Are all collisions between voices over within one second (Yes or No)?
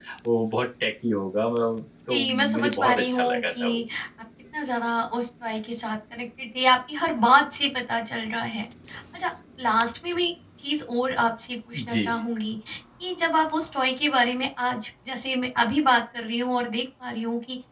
No